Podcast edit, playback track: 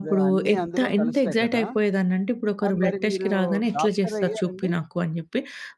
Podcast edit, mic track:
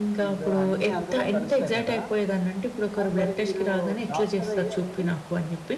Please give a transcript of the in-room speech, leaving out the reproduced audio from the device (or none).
none